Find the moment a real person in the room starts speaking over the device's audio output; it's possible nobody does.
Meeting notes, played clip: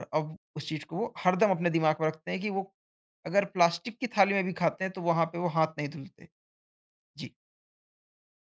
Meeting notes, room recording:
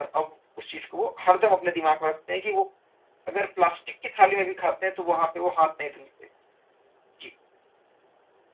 none

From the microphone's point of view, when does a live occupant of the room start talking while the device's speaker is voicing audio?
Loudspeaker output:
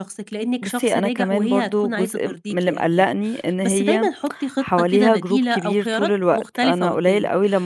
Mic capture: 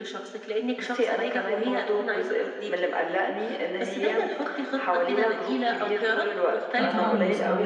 6.8 s

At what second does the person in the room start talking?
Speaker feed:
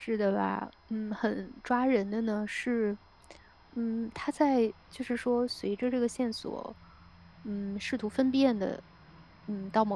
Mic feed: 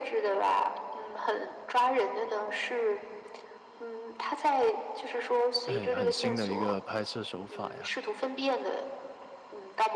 5.6 s

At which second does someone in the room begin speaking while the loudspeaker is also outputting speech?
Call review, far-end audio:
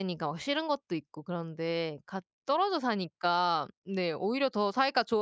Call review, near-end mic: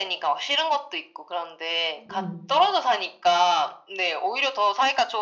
2.1 s

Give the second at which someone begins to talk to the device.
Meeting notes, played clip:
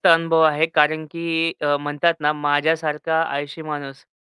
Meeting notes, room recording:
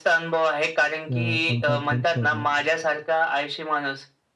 1.1 s

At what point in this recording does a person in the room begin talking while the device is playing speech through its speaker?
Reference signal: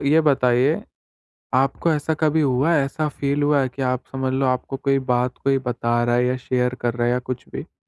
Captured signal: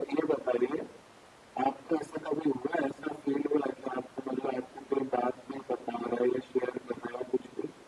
none

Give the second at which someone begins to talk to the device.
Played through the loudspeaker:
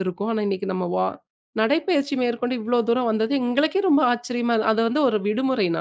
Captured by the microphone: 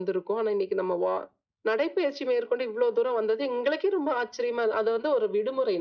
none

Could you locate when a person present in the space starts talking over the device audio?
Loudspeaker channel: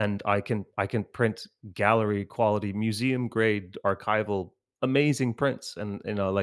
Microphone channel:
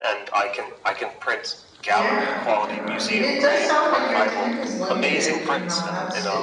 1.9 s

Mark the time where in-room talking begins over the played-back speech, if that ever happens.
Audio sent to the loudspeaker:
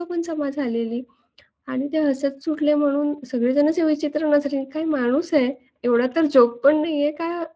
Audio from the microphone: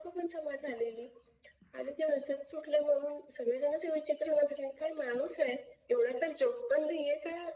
none

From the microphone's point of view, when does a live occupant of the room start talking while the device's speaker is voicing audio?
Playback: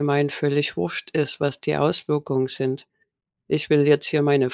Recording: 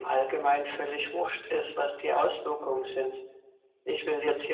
none

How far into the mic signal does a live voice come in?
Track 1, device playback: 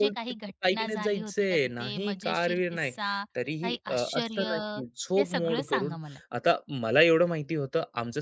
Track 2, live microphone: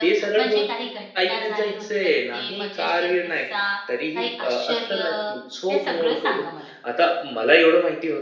none

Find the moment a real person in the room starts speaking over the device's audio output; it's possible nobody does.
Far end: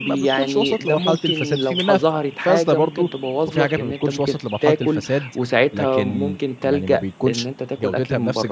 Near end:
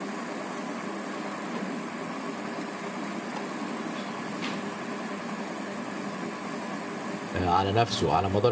7.3 s

